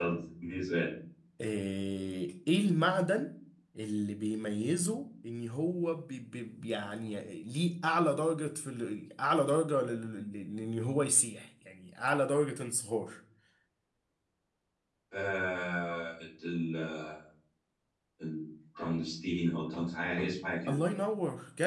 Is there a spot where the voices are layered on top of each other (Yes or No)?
No